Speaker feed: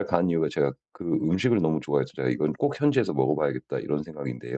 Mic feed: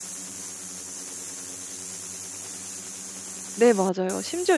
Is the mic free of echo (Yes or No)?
Yes